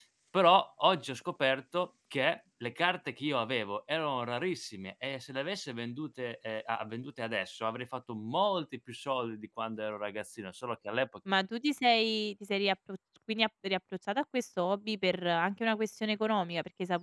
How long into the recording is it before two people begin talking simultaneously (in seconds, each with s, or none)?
none